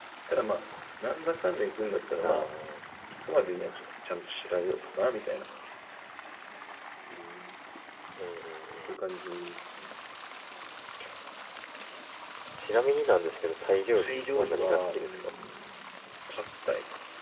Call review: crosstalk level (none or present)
present